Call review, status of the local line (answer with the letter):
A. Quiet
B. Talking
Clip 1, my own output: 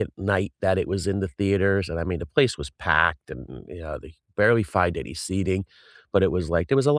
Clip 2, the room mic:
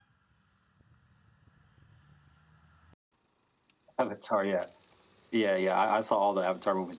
B